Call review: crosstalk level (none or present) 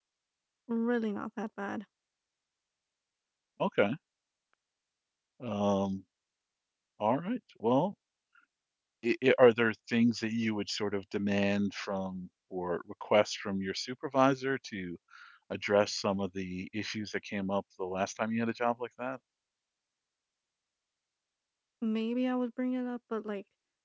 none